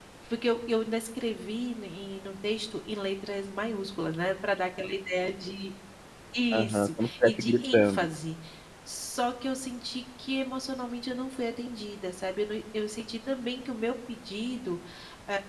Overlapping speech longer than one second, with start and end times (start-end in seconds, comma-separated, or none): 6.5-8.1